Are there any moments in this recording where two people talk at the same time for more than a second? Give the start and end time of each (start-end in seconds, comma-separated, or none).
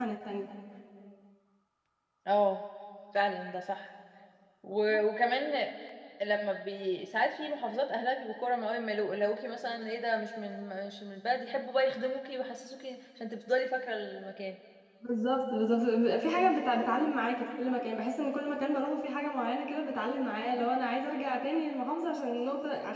none